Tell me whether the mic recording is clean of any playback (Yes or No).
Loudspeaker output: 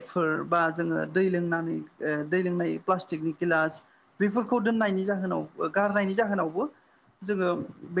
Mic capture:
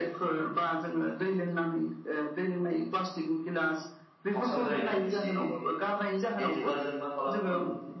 No